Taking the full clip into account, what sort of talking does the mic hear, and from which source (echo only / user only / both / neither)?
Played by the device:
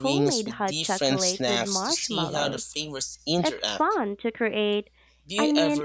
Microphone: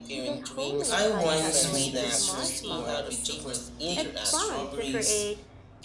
both